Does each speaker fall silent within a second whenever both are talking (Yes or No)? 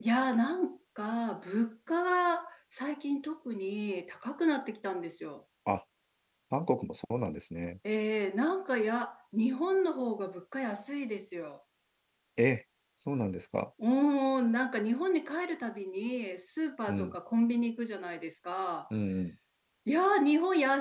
Yes